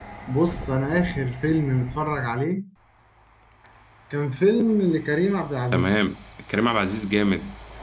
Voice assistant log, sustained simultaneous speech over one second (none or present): none